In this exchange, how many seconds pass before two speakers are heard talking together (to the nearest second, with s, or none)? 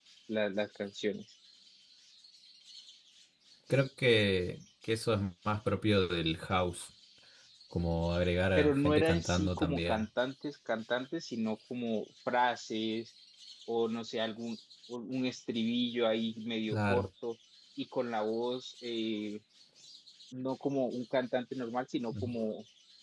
9 s